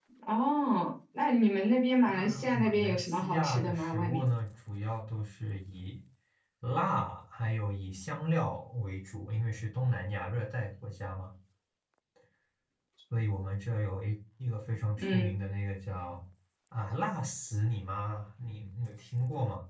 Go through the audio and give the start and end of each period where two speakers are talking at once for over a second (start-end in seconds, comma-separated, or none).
2.1-4.3